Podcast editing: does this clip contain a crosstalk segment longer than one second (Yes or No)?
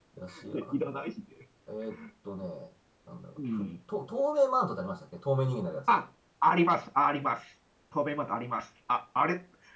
No